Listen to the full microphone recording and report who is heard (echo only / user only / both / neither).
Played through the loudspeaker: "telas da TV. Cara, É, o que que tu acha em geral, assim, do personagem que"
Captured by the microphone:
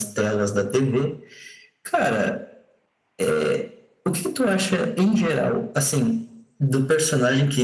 echo only